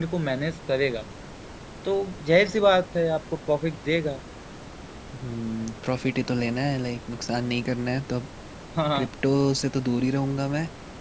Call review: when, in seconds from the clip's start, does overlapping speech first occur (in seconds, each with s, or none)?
none